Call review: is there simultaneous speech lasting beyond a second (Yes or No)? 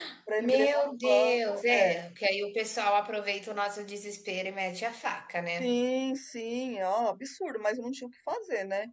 Yes